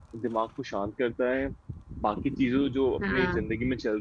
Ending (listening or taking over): listening